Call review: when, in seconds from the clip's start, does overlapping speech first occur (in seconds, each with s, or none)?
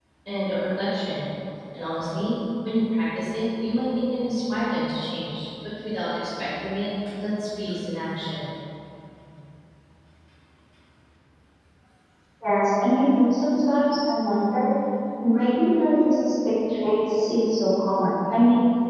none